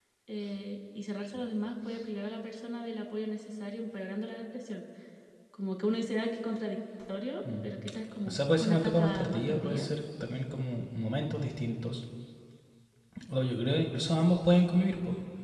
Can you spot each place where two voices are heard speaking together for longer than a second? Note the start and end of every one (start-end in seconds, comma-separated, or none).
8.3-9.9